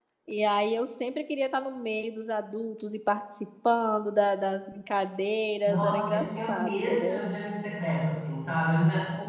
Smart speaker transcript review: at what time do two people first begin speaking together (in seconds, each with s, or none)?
5.7 s